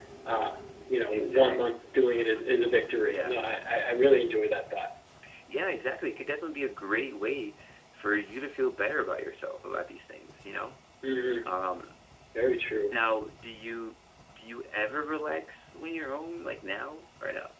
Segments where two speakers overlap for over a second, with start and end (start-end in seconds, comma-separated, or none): none